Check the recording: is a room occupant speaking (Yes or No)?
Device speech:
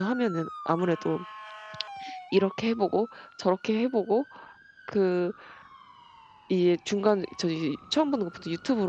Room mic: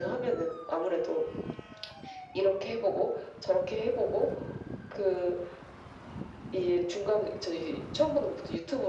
No